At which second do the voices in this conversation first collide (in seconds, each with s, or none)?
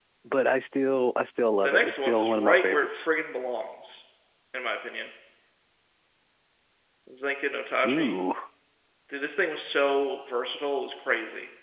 1.6 s